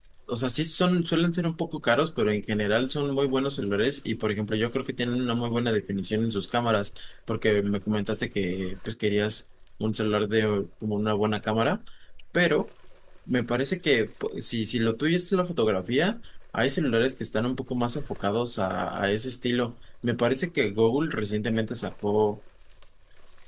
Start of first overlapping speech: none

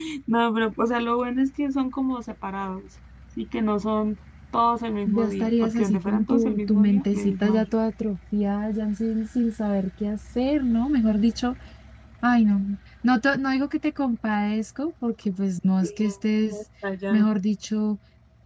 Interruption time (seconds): 5 s

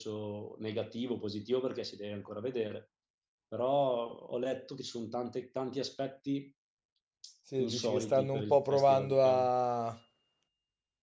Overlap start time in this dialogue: 8 s

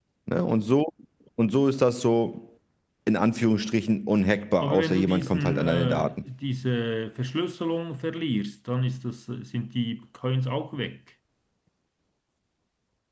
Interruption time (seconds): 5 s

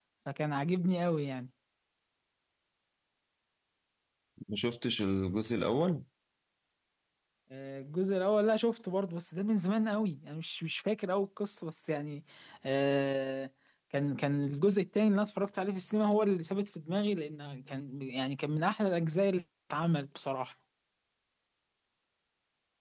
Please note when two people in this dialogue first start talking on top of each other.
none

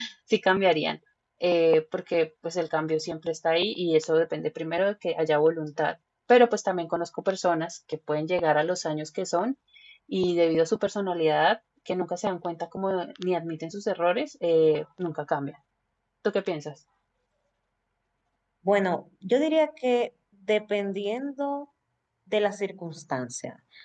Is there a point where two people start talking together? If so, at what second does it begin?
none

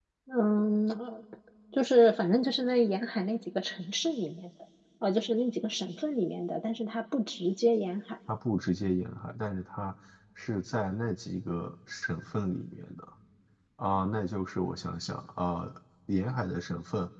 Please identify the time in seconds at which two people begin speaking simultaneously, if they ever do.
none

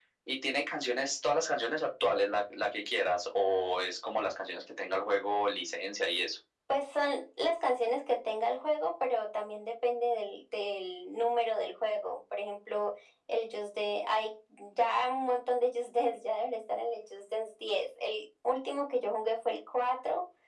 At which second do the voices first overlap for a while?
none

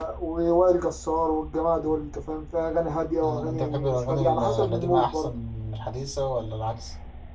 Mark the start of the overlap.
3 s

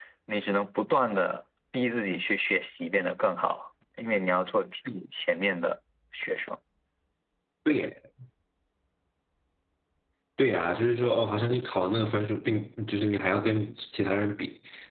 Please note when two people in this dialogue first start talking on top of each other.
none

